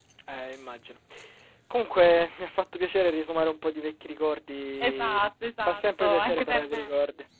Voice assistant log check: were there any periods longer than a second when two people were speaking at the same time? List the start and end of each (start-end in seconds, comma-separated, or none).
5.7-6.9